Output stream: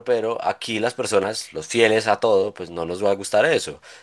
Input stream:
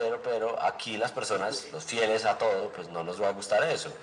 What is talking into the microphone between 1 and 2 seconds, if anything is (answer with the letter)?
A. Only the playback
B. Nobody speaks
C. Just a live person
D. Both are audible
D